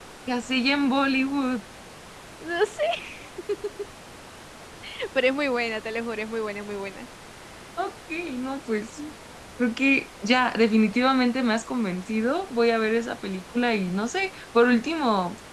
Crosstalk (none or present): none